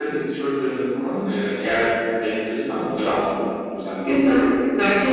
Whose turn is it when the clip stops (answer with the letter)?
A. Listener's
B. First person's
A